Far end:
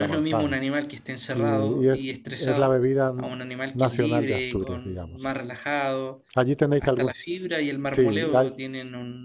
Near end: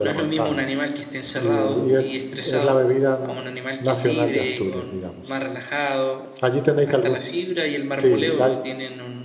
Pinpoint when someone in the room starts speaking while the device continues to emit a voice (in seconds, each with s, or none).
none